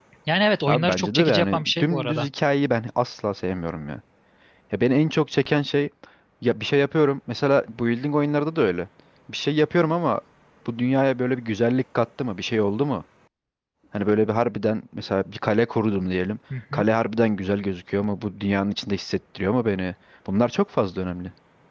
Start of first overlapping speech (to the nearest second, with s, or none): 1 s